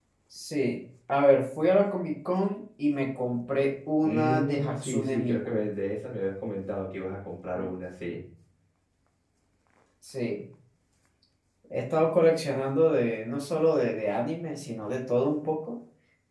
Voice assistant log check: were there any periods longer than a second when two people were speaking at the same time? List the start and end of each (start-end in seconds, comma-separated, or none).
4.0-5.7